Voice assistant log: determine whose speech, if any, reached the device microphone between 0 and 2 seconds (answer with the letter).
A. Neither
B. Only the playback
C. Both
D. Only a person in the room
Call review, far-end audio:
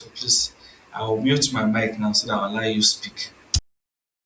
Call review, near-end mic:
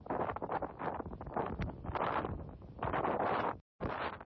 A